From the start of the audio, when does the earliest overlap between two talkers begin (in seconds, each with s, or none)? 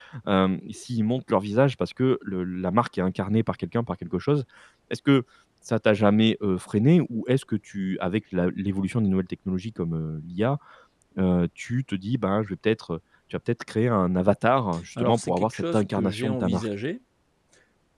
15.0 s